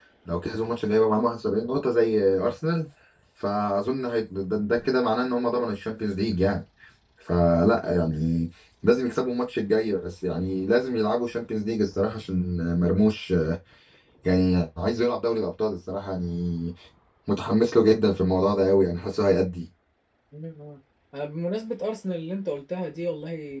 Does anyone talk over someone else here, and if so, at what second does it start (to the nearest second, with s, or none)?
none